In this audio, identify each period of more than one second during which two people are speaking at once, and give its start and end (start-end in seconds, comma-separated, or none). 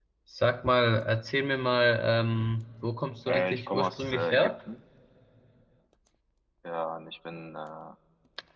3.3-4.5